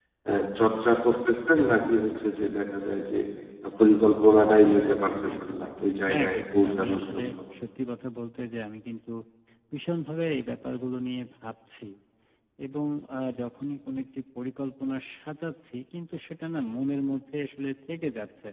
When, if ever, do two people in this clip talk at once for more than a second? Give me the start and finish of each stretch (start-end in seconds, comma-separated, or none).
5.4-7.3